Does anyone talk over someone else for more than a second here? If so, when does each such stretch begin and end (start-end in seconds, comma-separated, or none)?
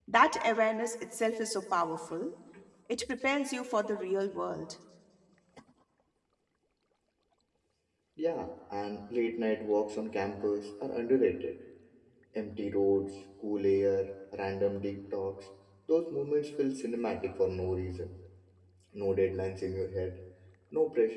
none